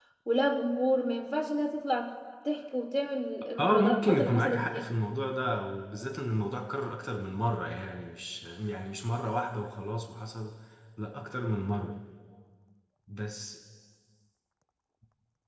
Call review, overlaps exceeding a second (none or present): present